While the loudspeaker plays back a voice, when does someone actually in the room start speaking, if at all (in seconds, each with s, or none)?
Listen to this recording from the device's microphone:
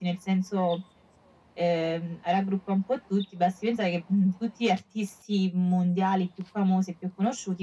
none